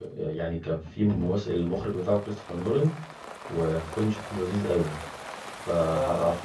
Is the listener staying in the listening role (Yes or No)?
Yes